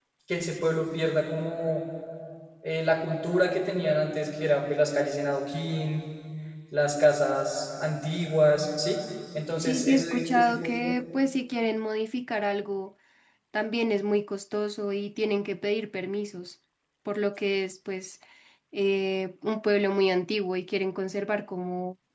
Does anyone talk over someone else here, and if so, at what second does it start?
9.6 s

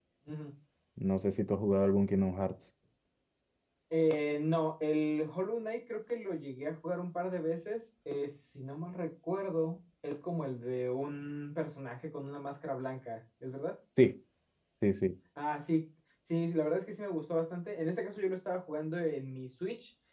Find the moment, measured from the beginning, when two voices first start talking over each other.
none

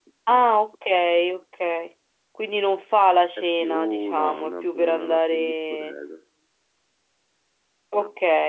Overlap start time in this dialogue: 3.4 s

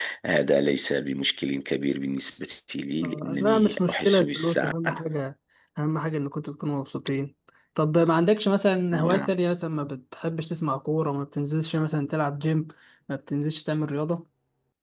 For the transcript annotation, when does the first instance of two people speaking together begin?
3.0 s

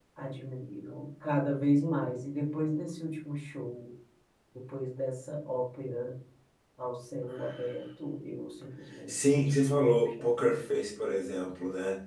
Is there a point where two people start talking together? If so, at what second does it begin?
9.1 s

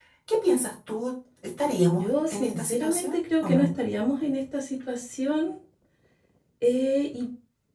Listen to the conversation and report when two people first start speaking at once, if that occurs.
1.9 s

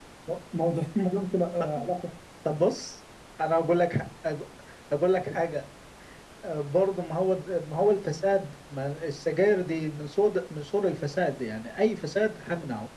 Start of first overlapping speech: none

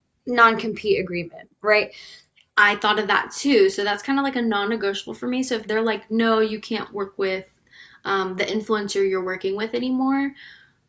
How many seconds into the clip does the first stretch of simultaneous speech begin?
none

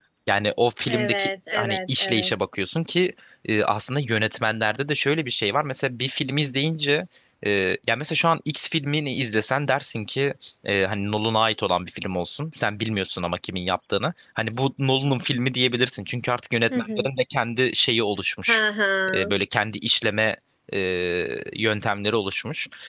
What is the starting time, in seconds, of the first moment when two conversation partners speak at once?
0.9 s

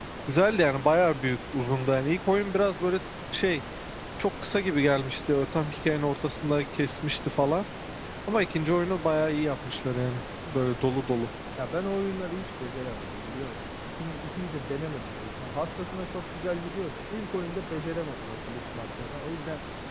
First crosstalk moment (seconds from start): none

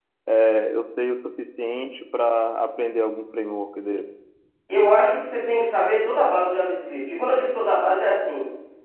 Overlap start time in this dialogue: none

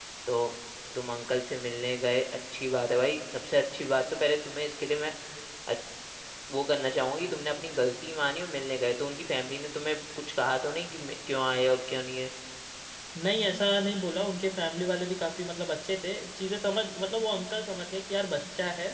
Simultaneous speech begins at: none

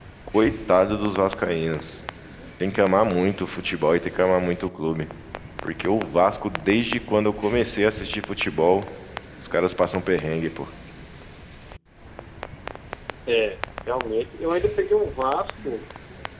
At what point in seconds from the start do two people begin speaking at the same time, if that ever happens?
none

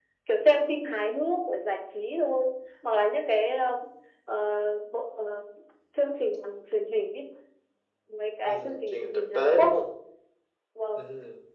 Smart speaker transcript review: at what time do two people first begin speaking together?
8.4 s

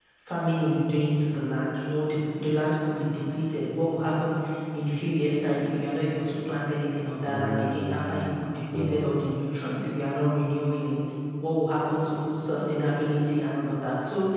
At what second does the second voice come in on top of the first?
7.2 s

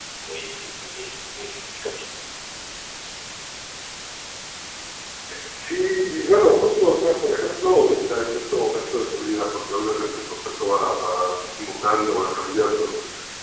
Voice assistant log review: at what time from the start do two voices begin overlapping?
none

